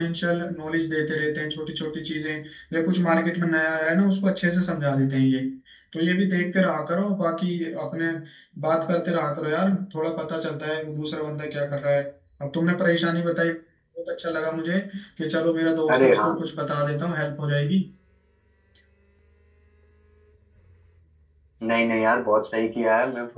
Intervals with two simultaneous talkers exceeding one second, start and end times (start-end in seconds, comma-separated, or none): none